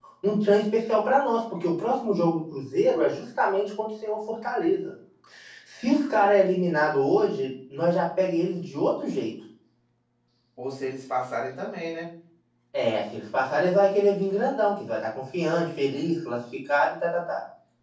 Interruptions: none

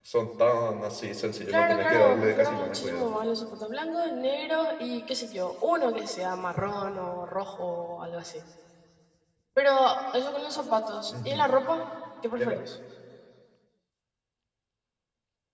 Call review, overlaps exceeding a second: present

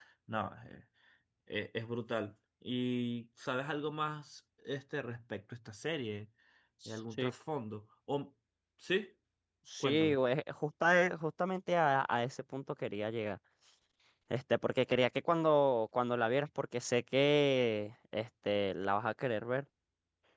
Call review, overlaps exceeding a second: none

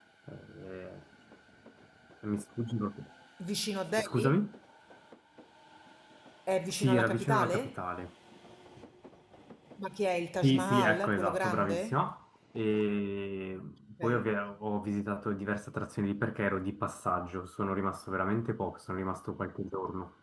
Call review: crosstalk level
present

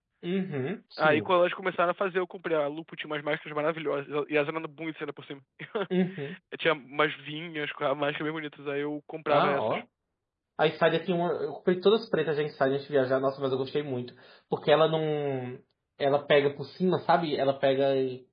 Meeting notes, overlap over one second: none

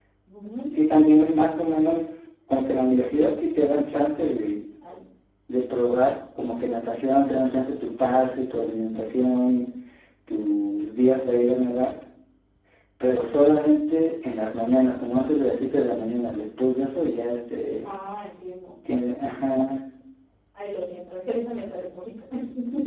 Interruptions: none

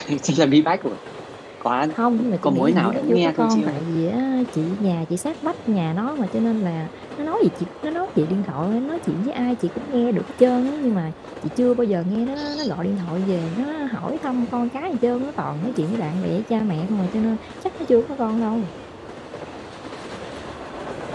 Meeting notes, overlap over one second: present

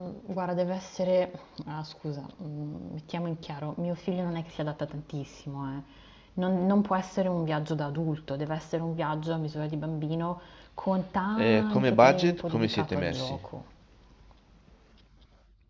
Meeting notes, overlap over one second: present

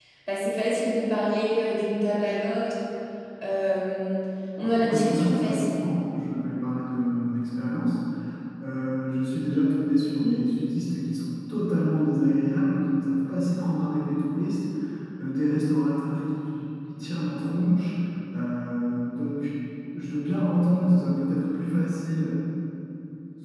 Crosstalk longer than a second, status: present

